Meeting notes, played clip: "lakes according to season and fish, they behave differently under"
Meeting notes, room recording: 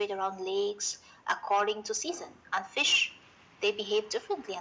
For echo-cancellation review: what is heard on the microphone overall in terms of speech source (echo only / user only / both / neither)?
echo only